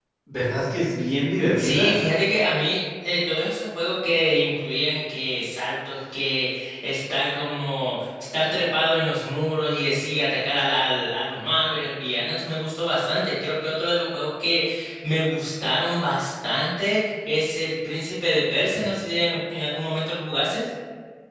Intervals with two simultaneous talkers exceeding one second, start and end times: none

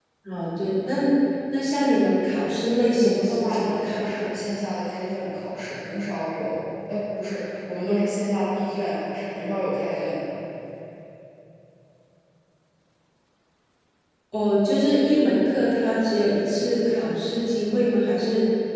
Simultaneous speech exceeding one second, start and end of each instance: 3.0-4.2

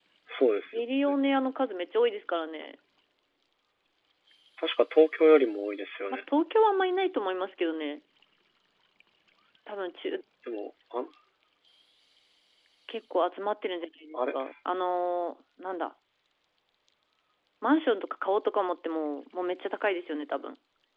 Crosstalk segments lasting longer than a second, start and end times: none

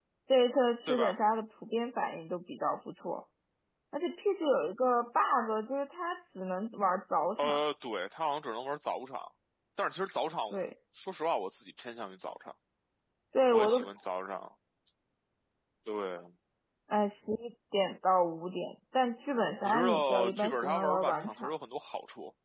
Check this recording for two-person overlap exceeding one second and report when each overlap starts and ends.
19.6-21.5

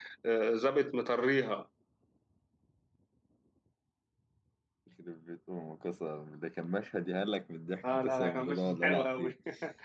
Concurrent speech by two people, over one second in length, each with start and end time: 7.9-9.3

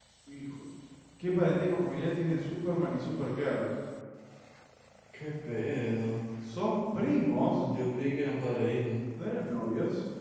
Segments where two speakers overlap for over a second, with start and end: none

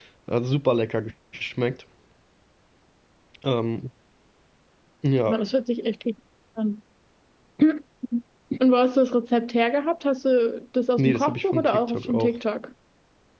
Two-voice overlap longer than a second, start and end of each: 11.0-12.3

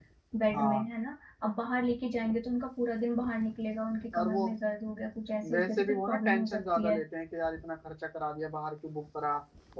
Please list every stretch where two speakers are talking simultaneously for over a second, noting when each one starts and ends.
5.5-7.0

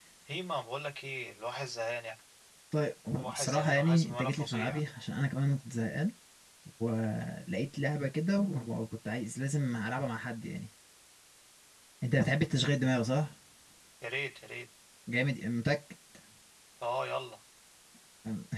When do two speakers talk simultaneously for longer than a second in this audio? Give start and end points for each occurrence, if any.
3.3-4.8

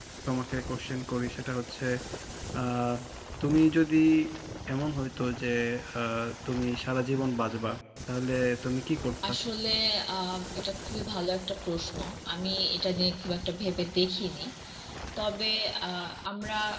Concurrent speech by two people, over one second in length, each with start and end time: none

